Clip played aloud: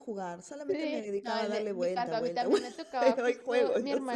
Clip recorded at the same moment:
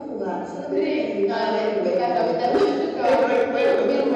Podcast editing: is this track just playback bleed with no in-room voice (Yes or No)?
Yes